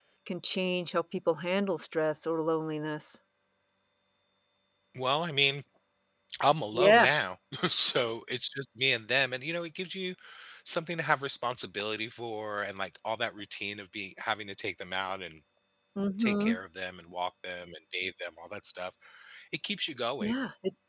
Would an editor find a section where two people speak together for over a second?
No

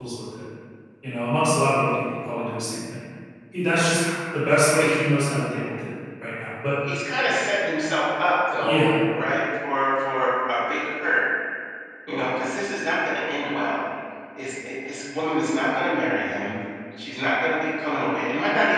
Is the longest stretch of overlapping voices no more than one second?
Yes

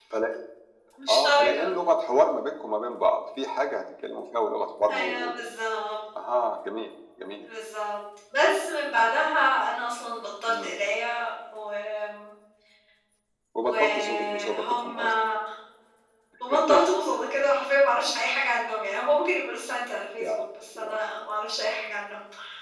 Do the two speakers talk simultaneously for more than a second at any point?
Yes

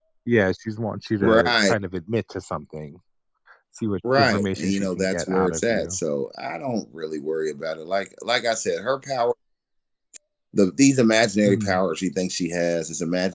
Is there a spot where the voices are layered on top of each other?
Yes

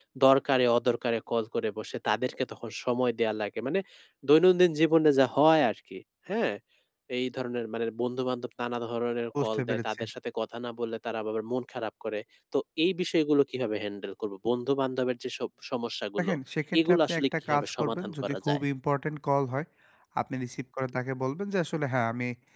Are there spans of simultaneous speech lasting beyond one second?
Yes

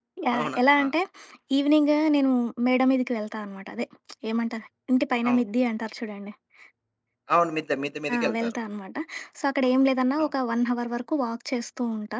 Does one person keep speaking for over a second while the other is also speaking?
No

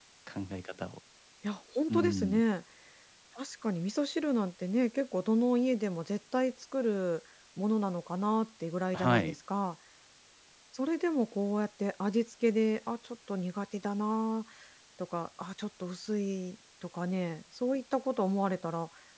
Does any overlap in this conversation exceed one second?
No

